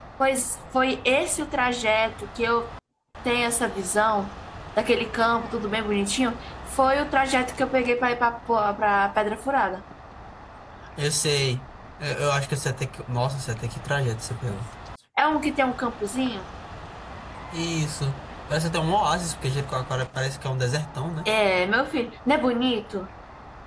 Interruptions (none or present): none